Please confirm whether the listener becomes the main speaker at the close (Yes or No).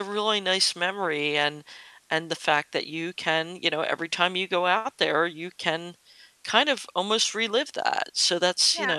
Yes